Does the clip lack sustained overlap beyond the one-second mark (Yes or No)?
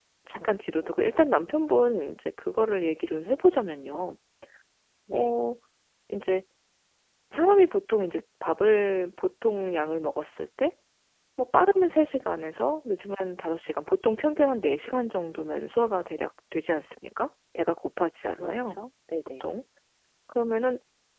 Yes